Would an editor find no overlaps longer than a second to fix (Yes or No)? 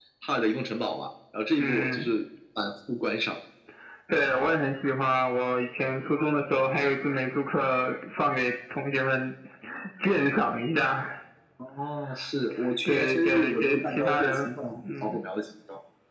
No